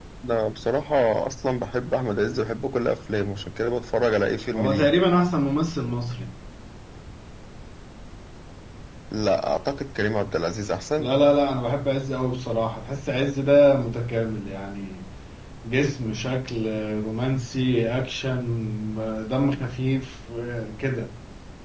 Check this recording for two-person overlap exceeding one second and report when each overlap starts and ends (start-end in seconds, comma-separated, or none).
none